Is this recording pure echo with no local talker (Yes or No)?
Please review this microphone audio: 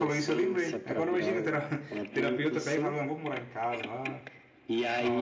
No